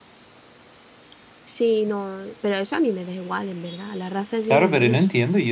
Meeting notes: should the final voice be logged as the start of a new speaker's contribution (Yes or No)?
Yes